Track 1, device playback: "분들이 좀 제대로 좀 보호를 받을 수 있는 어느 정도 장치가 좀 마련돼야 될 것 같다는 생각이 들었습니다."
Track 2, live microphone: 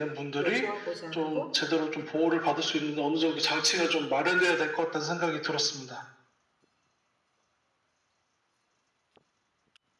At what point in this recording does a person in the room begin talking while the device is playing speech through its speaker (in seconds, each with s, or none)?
0.4 s